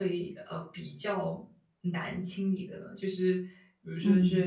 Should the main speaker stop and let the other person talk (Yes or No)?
No